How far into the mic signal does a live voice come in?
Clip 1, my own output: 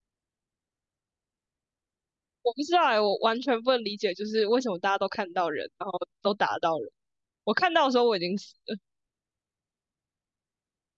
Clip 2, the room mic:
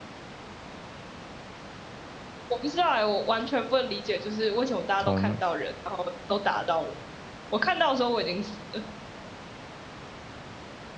5.0 s

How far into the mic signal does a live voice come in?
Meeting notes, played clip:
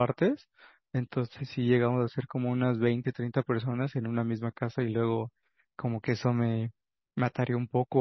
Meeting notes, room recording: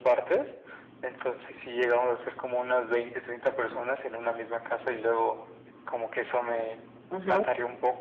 7.1 s

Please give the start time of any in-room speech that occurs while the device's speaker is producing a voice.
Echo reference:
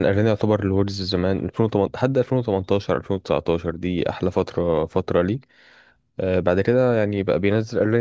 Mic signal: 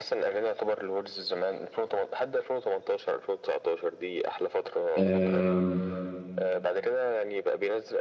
5.0 s

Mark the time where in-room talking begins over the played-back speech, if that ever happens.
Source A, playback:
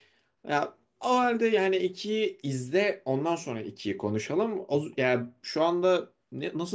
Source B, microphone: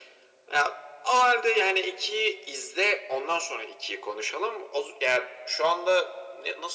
none

